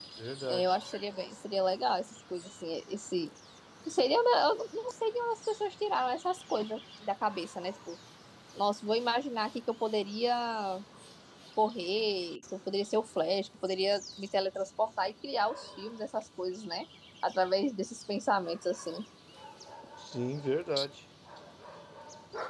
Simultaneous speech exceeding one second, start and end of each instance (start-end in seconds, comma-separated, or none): none